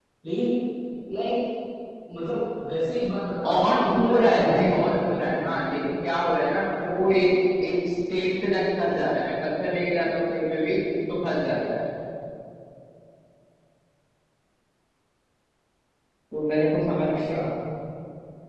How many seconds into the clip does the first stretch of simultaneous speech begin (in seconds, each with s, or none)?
3.5 s